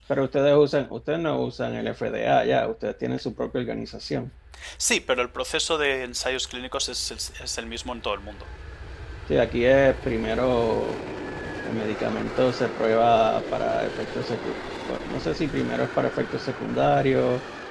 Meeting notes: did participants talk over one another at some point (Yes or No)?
No